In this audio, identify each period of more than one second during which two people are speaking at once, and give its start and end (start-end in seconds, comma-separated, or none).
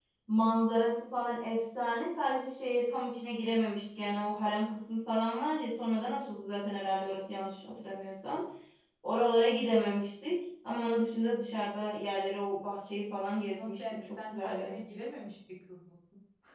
13.5-14.8